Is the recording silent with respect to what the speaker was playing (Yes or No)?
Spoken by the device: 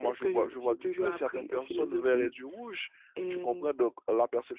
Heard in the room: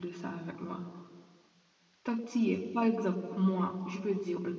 Yes